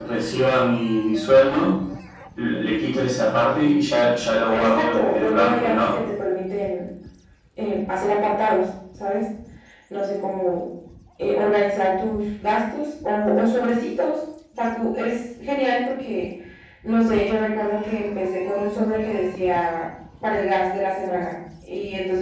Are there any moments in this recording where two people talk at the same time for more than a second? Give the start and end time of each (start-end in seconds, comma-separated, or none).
4.5-6.0